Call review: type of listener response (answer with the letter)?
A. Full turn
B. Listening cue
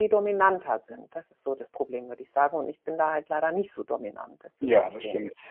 A